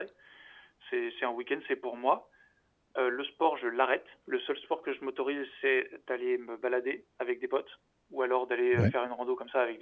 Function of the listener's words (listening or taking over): listening